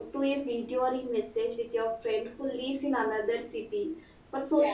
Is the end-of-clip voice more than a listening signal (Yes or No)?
No